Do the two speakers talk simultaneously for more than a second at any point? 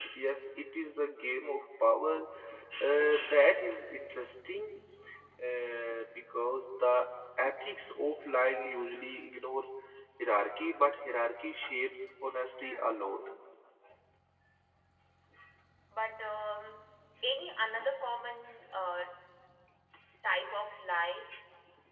No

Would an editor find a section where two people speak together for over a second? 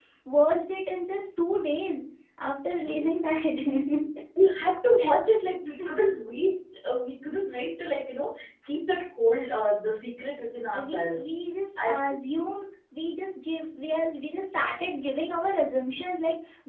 No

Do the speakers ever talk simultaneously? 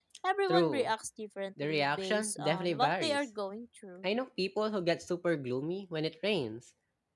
Yes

